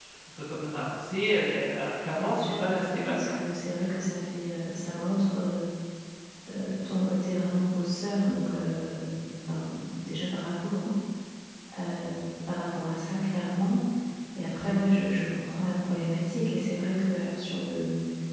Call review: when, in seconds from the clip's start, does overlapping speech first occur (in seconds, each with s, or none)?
2.2 s